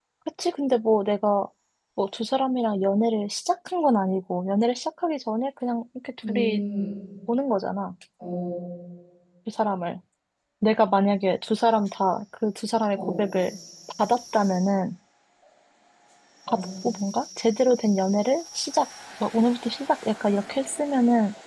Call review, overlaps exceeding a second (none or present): none